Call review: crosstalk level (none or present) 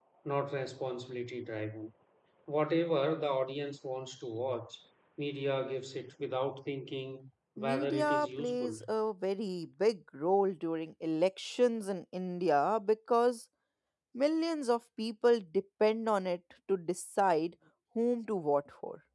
present